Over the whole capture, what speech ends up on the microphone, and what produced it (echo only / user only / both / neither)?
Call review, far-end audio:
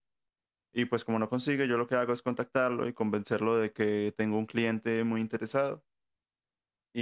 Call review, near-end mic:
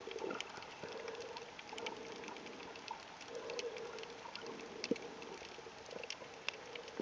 neither